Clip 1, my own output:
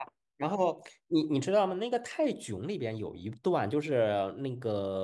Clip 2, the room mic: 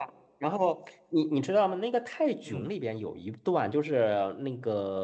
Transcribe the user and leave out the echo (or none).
嗯